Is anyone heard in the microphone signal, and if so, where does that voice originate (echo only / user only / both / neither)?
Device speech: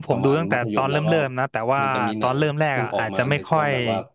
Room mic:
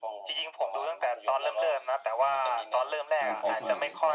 both